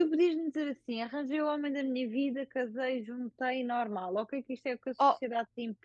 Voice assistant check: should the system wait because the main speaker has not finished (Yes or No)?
Yes